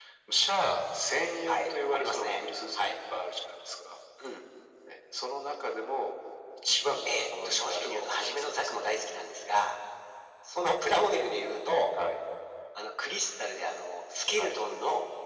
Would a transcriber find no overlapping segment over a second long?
No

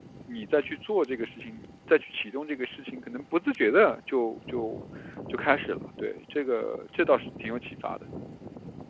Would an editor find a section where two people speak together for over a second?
No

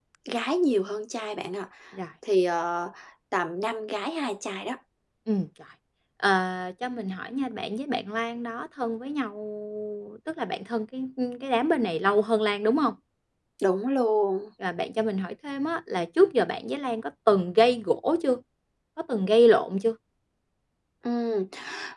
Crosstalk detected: No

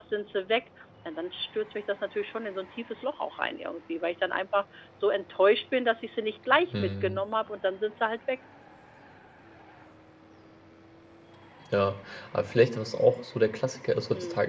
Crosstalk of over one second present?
No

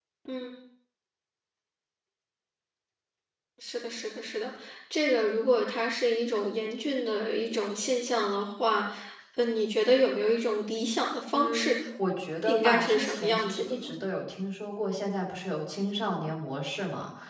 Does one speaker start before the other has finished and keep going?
Yes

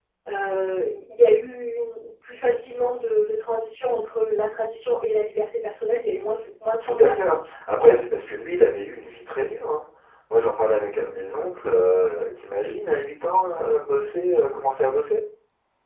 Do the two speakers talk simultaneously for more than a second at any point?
No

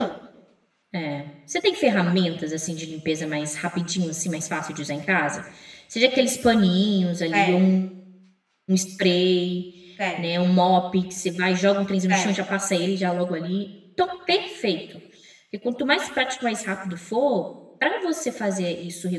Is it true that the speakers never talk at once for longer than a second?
Yes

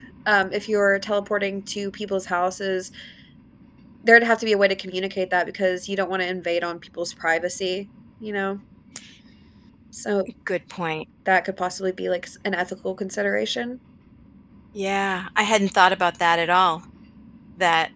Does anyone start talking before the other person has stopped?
No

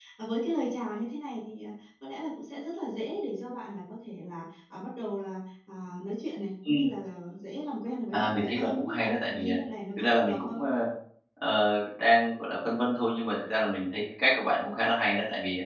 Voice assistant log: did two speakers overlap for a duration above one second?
Yes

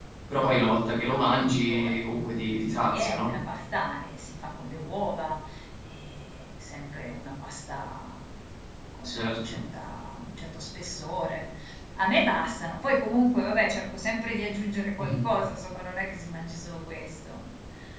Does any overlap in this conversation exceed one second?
Yes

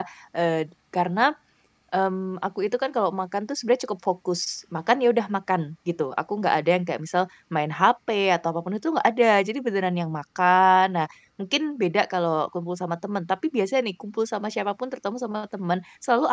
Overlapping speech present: No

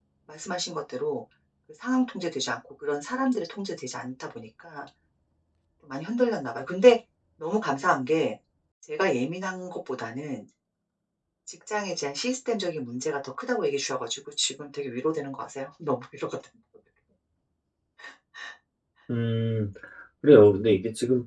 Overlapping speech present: No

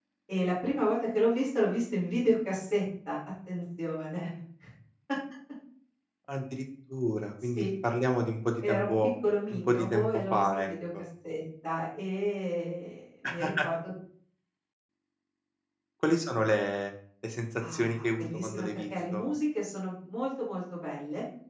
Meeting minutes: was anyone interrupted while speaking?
Yes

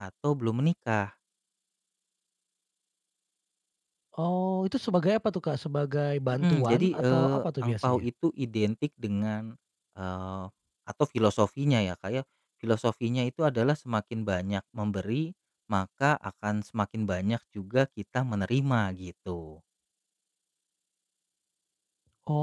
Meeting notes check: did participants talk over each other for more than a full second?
Yes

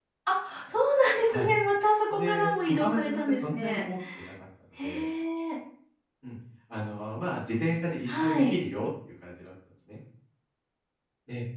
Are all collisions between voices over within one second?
No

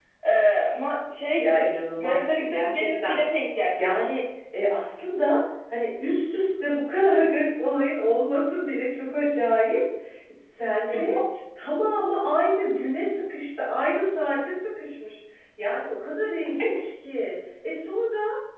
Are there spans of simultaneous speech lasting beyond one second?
Yes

